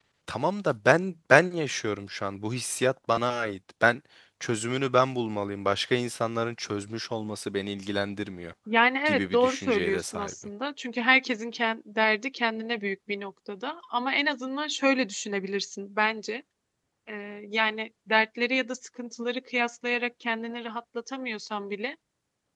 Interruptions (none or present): present